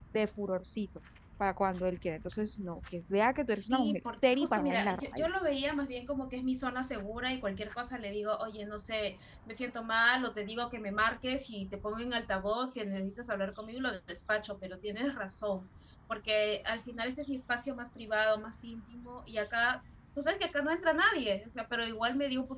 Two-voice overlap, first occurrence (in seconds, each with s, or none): 3.5 s